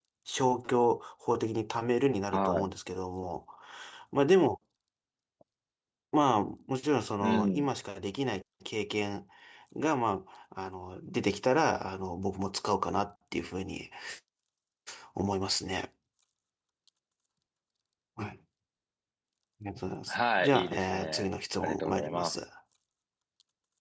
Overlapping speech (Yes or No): Yes